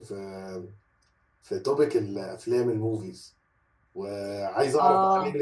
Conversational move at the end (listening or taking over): listening